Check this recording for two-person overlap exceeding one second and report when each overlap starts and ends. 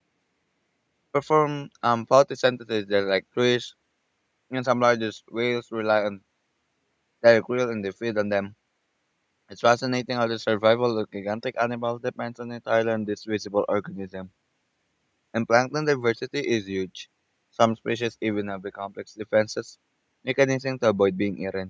none

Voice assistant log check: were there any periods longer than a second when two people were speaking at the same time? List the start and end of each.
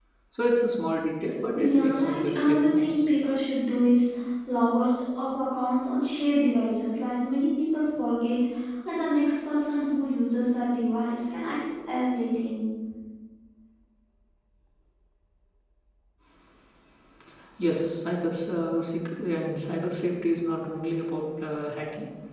1.6-3.1

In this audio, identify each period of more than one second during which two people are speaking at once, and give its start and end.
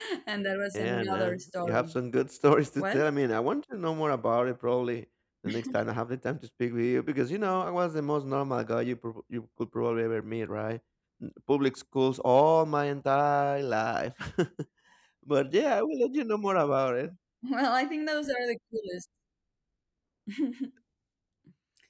0.7-2.0

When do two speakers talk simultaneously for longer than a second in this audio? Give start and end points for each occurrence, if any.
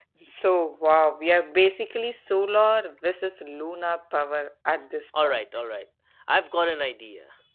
none

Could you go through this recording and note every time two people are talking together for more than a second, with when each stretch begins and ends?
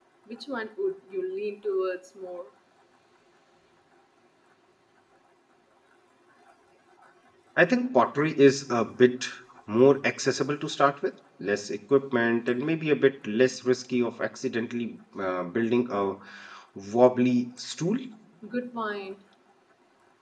none

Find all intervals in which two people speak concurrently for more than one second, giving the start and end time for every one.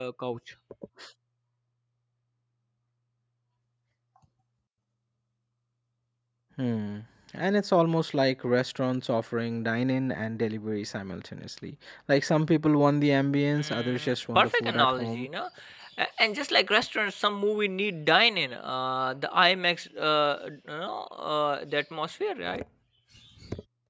13.6-15.3

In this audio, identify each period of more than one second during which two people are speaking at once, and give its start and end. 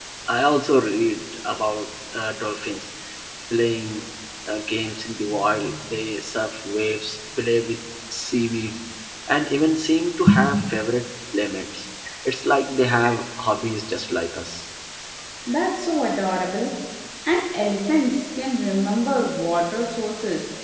none

